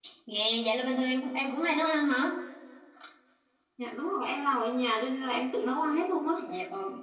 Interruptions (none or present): none